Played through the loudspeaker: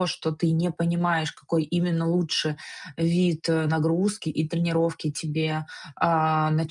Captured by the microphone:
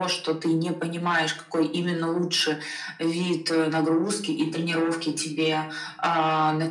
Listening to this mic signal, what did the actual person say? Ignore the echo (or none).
none